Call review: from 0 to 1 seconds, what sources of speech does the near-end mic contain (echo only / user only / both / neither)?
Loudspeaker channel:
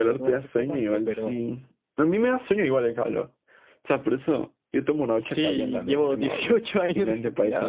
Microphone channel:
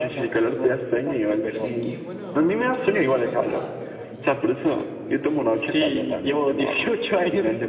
both